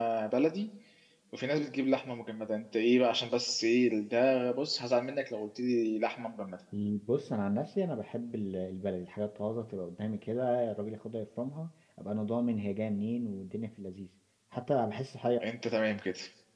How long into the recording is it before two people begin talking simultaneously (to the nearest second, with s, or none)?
none